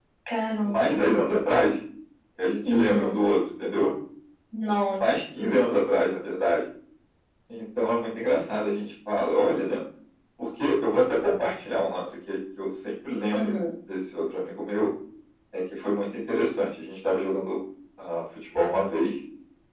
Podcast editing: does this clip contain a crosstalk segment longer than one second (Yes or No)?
No